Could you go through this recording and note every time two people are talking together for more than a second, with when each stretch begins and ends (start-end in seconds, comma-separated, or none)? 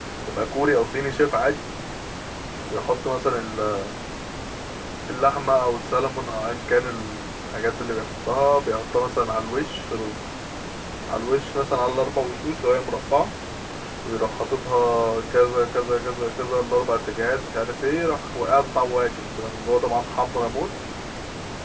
none